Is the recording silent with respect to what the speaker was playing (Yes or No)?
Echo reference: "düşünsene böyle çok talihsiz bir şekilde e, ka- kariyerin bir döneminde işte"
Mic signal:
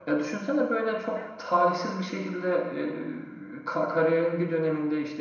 No